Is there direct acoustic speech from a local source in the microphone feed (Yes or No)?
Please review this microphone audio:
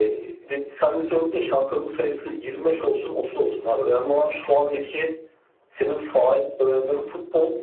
No